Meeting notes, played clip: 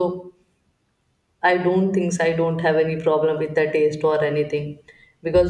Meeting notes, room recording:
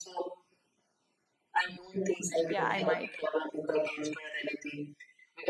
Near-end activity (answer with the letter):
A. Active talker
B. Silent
A